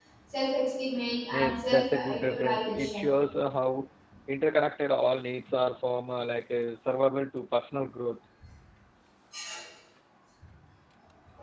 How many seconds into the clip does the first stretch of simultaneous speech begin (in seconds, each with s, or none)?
1.3 s